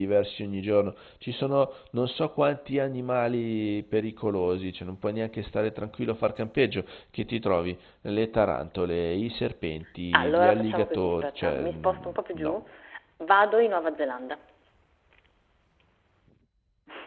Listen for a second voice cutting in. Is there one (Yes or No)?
Yes